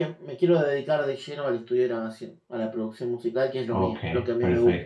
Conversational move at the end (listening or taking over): taking over